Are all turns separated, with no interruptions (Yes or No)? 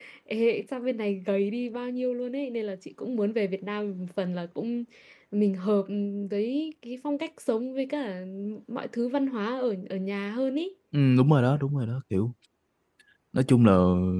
Yes